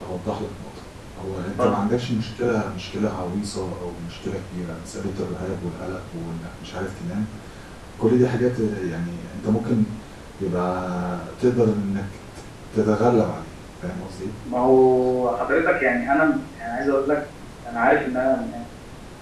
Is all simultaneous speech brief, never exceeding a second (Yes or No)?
Yes